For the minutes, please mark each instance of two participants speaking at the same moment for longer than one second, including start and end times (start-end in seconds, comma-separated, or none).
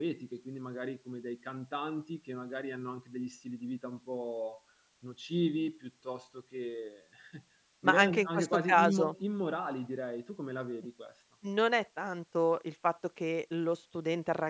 7.8-9.1